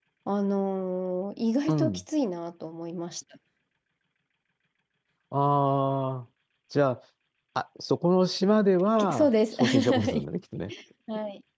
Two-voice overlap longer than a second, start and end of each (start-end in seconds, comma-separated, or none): 9.0-10.2